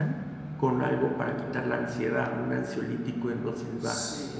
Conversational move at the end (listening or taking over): taking over